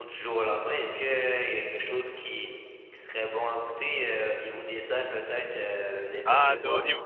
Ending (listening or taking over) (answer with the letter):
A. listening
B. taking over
B